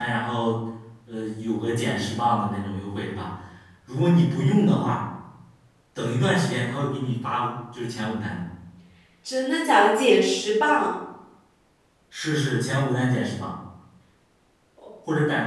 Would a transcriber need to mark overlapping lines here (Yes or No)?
No